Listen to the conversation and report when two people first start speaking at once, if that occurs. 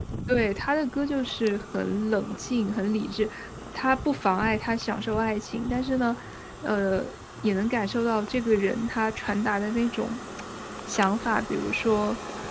none

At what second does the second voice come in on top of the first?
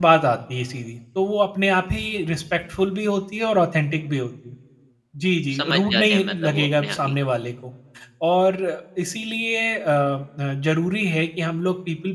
6 s

